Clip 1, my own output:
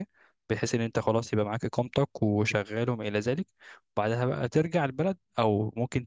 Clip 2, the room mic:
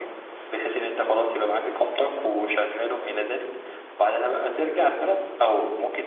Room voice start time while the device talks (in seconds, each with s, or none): none